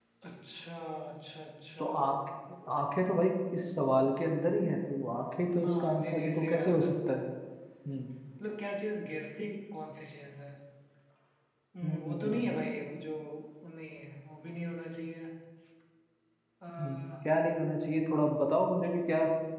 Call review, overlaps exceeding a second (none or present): present